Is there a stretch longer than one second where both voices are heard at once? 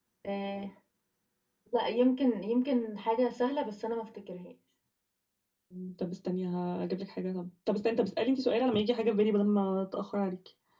No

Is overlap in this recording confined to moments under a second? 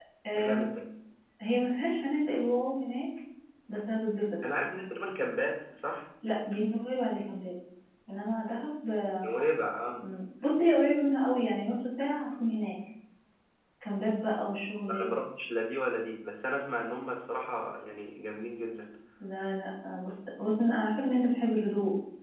Yes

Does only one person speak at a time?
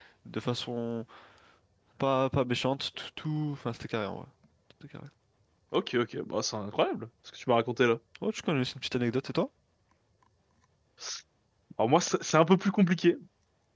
Yes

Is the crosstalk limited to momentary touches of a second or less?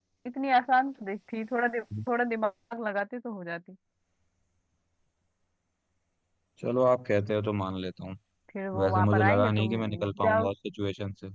No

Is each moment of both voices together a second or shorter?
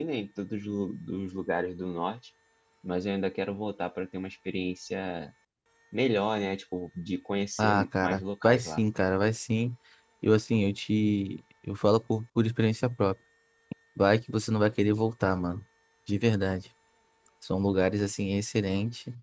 No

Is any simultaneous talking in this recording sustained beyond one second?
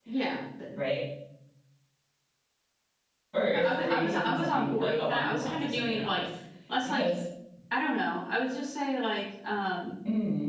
Yes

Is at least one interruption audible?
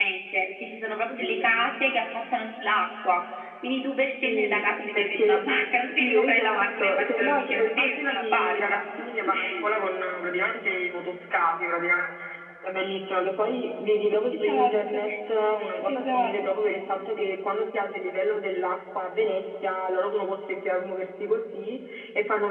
Yes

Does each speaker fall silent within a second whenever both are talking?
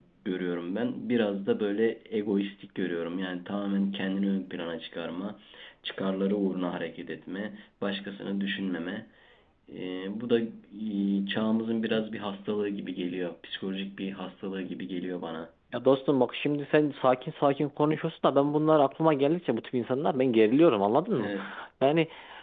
Yes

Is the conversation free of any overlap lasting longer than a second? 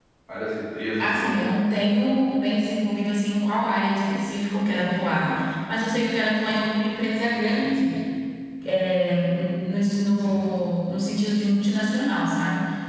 Yes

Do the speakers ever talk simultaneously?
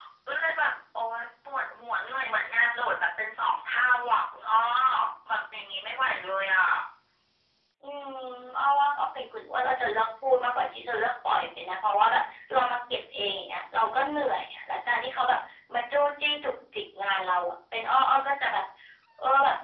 No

